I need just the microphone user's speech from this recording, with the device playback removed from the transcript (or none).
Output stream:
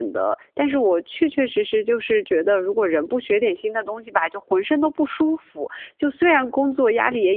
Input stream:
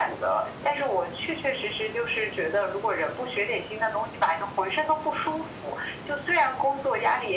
none